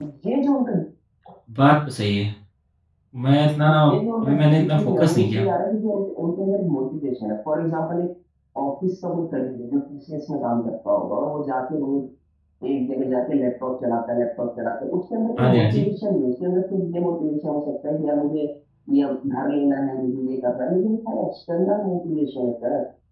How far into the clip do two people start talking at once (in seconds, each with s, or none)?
4.2 s